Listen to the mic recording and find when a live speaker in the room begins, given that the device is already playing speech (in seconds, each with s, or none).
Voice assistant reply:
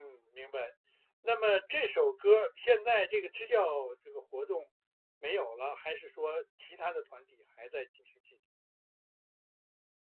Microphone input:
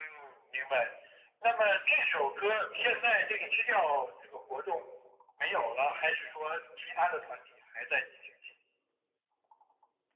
none